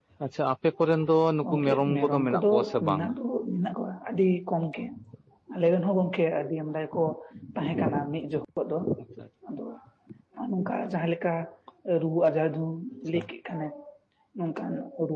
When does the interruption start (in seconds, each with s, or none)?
1.4 s